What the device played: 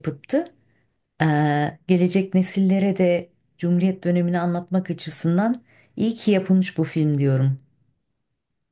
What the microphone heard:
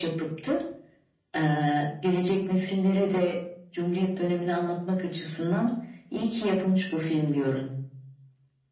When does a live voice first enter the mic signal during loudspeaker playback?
none

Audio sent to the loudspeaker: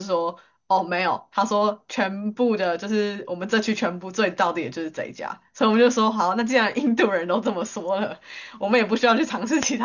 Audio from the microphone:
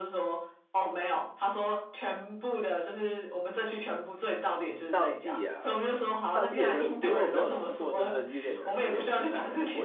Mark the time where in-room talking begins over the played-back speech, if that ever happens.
4.9 s

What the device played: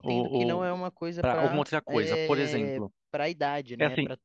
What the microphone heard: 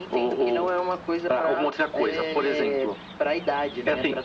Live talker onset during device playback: none

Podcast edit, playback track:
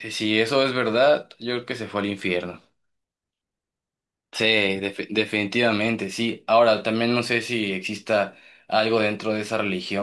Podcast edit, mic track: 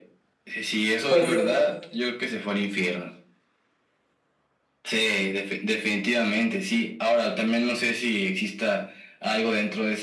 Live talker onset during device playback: 1.1 s

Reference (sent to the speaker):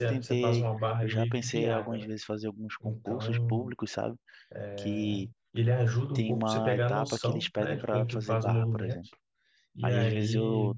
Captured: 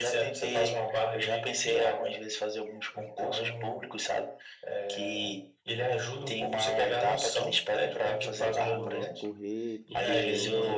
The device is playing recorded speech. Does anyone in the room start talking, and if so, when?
8.3 s

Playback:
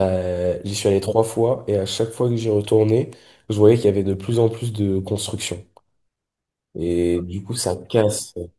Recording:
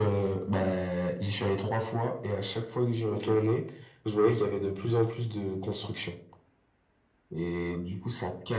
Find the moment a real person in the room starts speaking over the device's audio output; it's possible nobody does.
3.1 s

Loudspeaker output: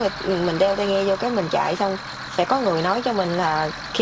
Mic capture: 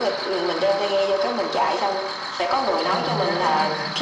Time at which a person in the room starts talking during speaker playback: 2.9 s

